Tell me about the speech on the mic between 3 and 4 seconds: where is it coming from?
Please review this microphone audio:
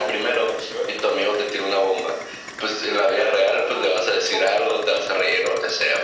echo only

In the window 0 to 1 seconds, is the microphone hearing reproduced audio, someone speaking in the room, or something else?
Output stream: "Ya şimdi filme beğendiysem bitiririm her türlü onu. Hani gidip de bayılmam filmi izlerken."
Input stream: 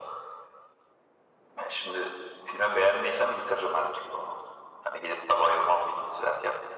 neither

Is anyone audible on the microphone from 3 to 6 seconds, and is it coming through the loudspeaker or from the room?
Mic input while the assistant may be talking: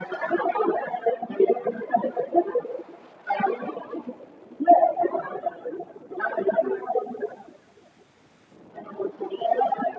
echo only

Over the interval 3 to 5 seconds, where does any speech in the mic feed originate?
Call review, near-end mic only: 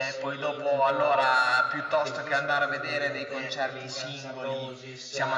both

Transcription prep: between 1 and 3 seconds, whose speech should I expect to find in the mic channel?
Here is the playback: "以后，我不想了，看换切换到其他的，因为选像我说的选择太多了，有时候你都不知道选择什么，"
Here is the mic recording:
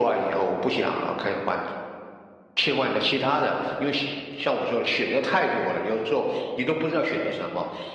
echo only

